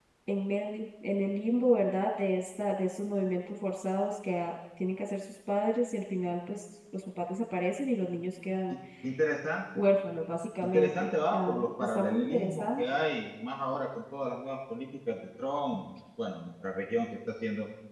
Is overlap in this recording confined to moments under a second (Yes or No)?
No